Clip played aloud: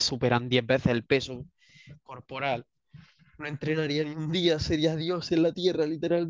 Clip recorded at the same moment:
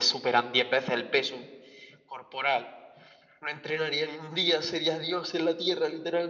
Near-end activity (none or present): none